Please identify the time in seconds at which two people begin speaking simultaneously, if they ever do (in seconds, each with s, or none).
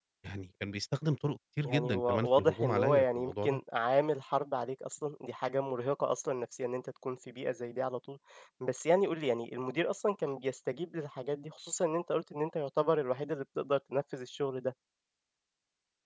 1.6 s